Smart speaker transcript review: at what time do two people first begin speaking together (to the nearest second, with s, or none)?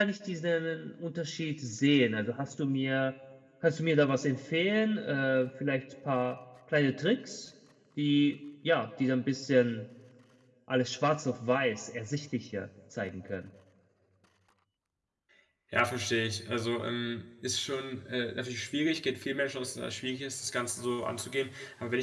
none